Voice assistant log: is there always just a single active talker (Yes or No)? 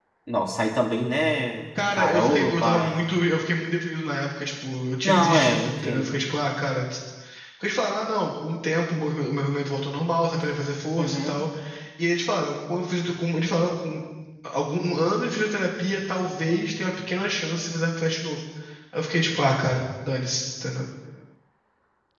No